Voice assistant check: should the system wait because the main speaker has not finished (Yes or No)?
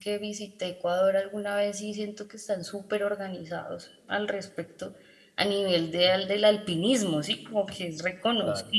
Yes